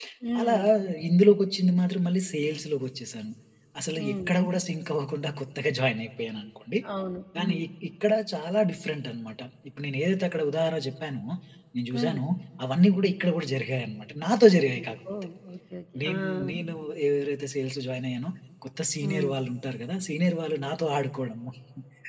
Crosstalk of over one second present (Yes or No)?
No